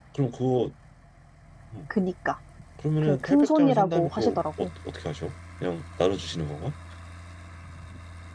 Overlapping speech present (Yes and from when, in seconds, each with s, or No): Yes, from 3.0 s